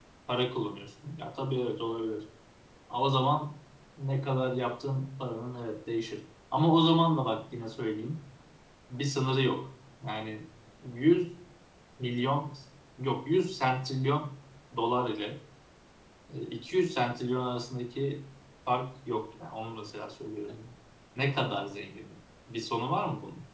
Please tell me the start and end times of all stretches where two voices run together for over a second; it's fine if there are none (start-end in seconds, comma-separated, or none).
none